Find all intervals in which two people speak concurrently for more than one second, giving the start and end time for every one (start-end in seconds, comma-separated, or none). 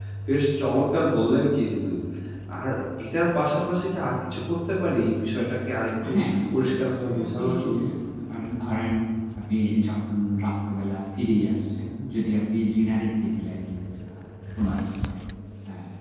6.5-7.8